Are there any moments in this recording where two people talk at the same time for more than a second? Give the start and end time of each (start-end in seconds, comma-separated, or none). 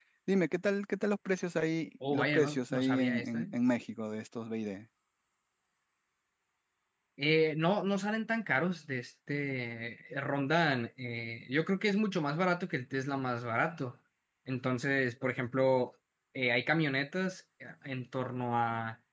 2.1-3.5